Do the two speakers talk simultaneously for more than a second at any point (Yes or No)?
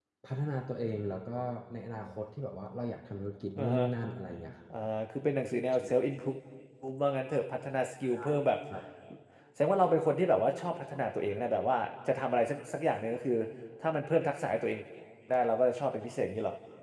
No